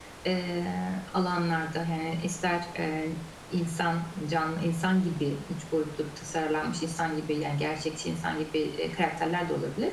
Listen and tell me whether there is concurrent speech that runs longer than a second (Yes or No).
No